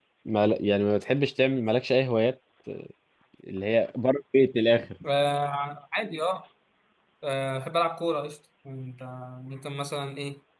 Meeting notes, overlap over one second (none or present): none